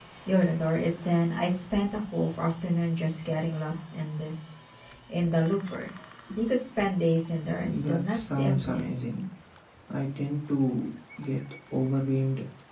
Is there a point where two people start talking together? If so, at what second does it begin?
8 s

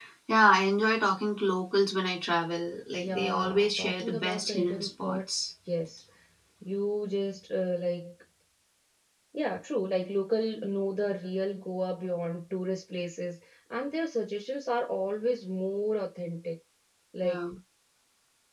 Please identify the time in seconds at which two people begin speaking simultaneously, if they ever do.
3 s

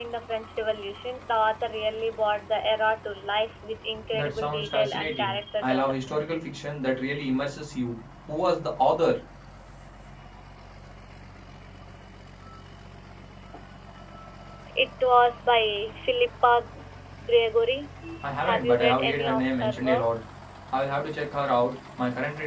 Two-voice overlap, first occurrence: 4 s

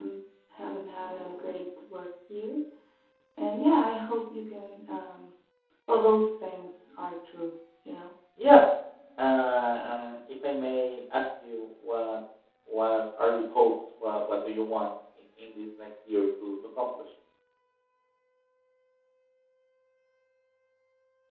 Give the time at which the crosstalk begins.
none

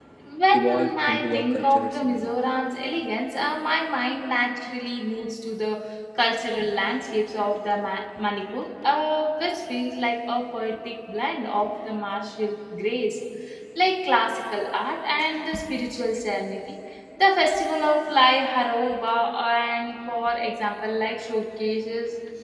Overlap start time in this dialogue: 1 s

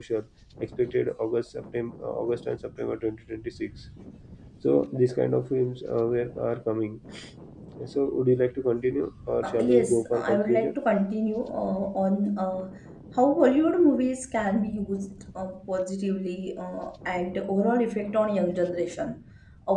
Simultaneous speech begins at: 9 s

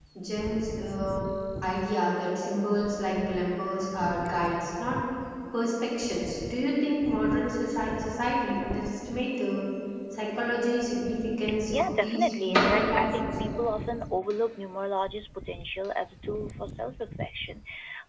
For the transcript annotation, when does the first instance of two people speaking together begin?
11 s

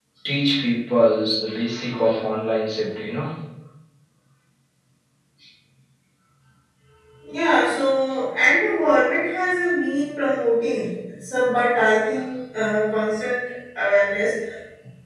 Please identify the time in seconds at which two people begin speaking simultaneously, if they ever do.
none

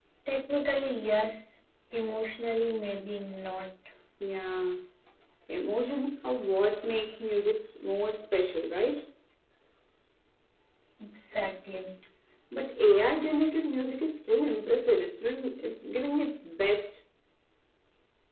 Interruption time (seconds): none

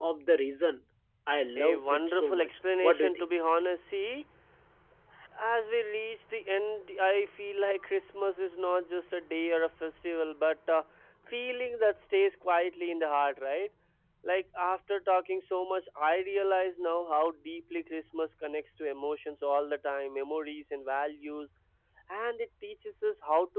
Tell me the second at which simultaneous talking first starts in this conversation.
2 s

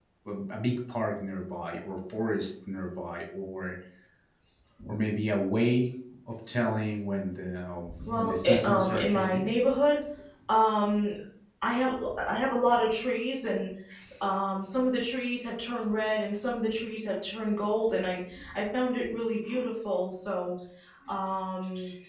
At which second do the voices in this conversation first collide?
8 s

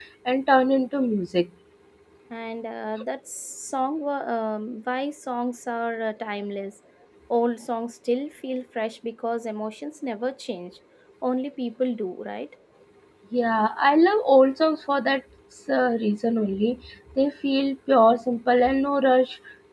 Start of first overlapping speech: none

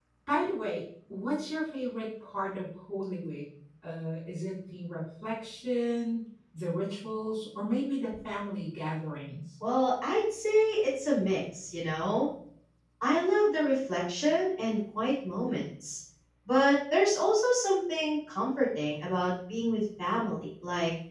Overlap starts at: none

